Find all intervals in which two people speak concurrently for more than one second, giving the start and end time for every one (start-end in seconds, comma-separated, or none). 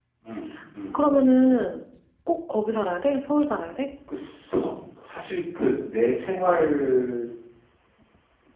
none